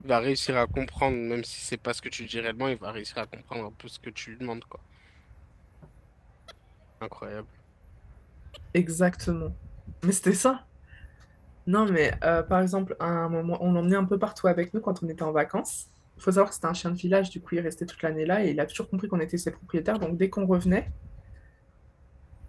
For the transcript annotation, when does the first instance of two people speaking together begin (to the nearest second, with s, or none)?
none